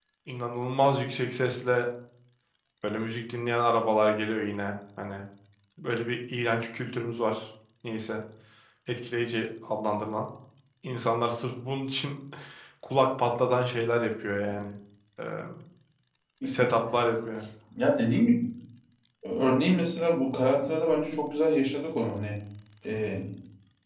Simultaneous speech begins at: none

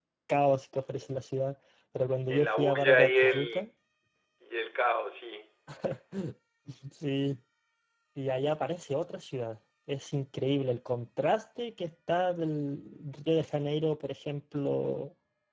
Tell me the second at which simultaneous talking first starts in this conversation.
2 s

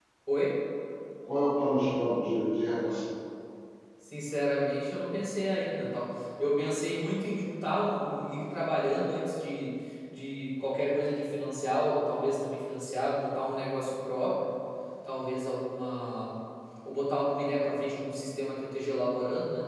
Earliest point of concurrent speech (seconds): none

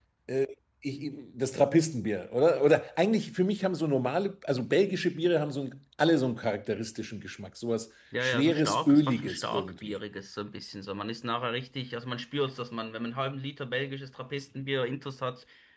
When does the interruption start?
8 s

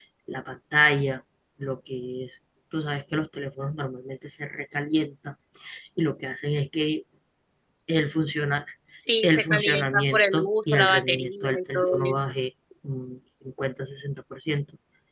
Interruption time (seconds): 9 s

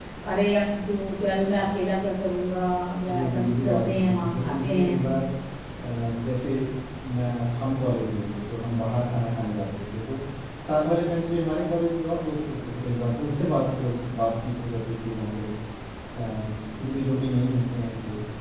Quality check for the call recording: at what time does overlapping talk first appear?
3 s

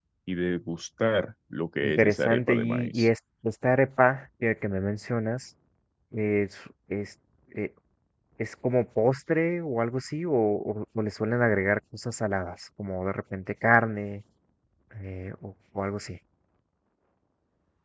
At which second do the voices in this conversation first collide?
2 s

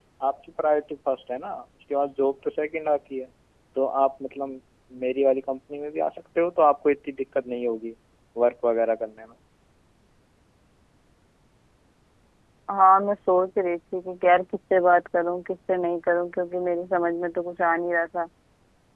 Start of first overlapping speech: none

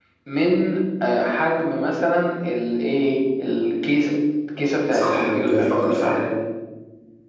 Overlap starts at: 5 s

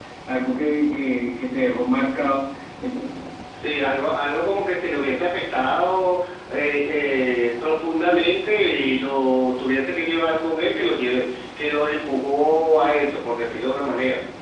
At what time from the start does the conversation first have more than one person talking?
none

